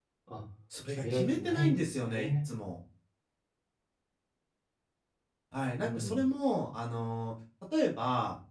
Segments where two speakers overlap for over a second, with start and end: 0.9-2.5

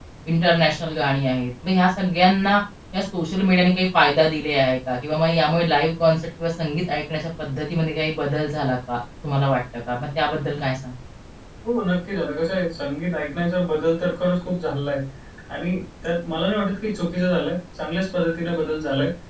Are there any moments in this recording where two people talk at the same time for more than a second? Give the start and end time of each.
none

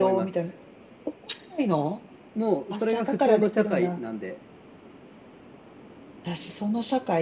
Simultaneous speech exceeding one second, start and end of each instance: 2.7-4.0

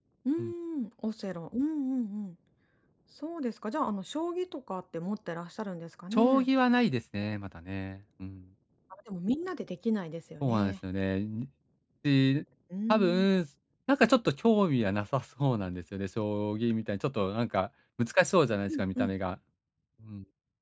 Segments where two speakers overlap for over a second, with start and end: none

